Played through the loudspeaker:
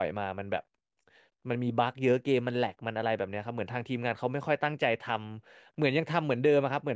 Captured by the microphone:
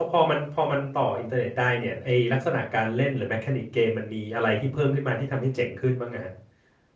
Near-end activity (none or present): present